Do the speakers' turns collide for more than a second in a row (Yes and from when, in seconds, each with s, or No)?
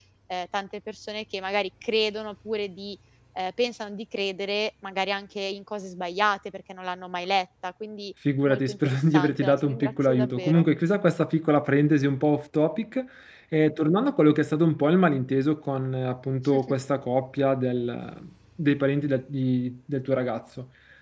Yes, from 8.5 s